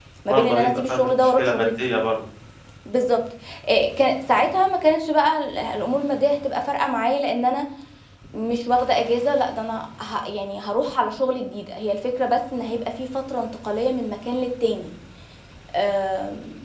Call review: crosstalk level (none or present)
present